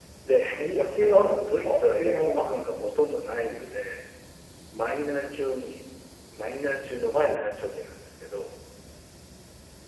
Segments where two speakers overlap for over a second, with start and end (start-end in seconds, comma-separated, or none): 1.0-2.5